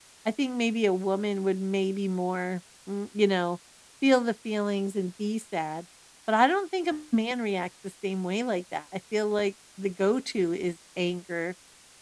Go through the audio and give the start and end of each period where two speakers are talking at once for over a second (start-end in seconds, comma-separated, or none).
none